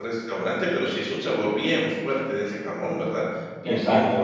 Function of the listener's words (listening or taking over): taking over